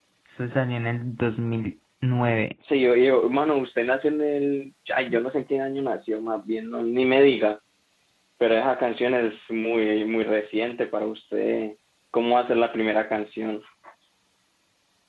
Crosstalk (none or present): none